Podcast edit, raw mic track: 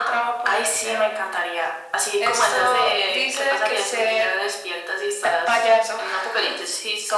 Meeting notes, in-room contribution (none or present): none